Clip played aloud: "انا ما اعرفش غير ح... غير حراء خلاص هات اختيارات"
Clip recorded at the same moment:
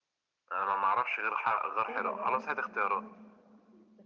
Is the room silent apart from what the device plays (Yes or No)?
No